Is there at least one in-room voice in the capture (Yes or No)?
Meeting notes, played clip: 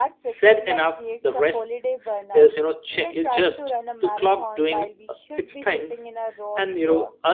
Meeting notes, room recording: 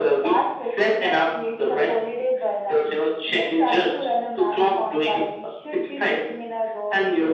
No